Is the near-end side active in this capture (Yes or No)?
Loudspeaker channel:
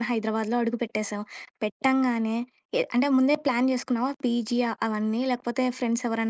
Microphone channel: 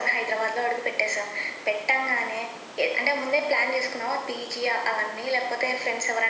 No